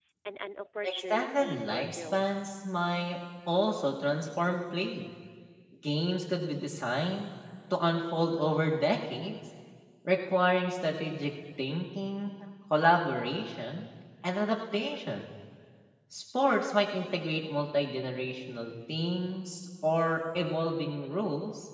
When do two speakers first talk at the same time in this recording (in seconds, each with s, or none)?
0.8 s